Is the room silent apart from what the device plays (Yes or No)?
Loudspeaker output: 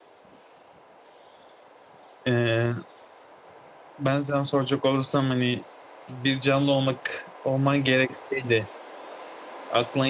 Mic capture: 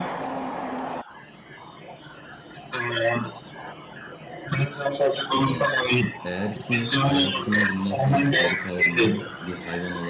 No